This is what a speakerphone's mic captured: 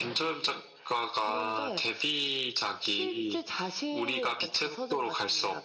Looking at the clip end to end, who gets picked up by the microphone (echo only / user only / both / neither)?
echo only